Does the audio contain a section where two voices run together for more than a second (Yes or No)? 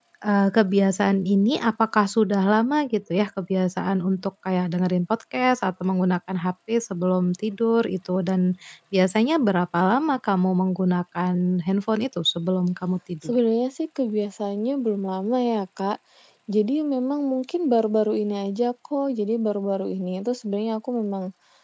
No